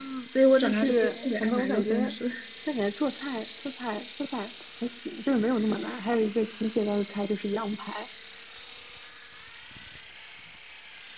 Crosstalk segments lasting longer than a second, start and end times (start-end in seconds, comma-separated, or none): 0.6-1.9